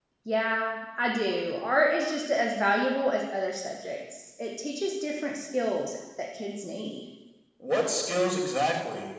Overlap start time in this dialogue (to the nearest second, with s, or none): none